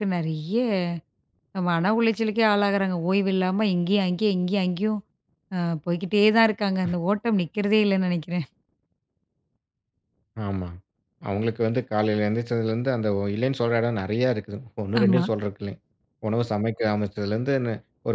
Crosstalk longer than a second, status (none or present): none